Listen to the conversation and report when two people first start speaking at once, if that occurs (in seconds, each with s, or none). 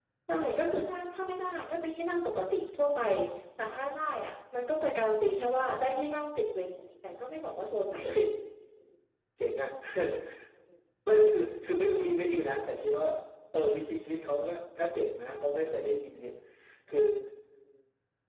none